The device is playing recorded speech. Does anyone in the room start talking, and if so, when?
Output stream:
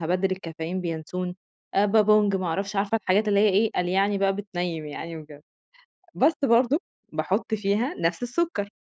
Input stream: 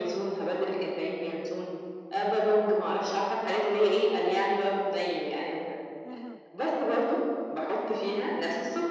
6.0 s

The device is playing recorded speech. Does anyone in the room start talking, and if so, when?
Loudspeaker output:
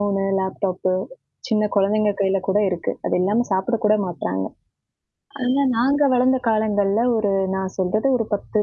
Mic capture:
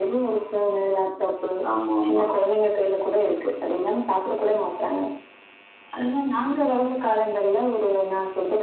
1.7 s

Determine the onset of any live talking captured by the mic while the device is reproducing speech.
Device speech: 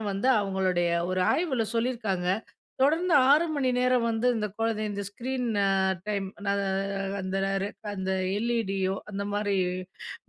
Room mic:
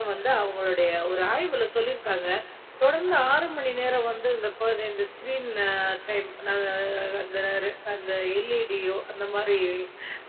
none

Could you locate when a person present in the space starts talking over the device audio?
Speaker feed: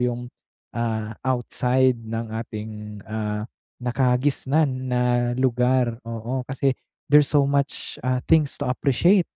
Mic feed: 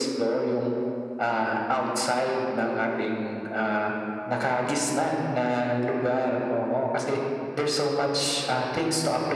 none

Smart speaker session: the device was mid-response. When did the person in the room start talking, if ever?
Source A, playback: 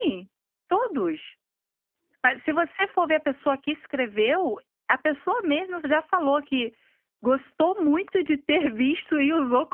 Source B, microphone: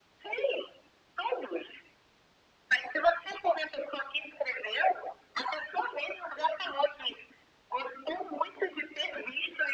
none

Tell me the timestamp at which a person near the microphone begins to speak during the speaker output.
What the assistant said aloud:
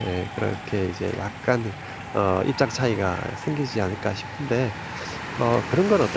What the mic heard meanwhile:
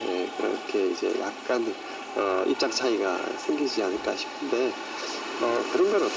none

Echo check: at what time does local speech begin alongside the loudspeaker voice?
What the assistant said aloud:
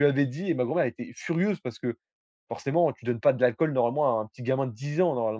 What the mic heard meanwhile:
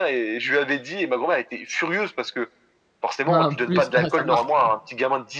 3.3 s

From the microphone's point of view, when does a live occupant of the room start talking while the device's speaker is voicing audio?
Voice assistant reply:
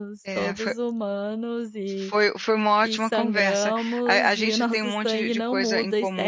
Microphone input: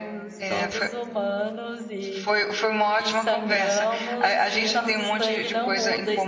none

